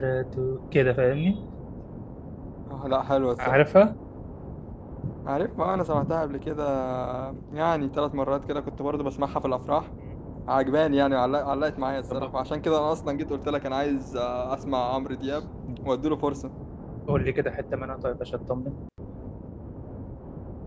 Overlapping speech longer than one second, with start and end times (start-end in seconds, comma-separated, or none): none